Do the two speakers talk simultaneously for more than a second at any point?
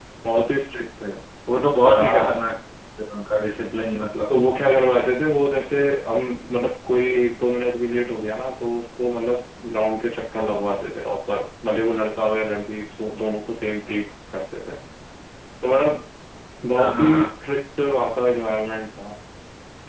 No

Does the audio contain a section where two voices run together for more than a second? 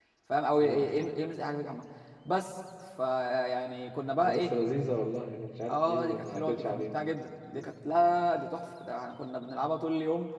Yes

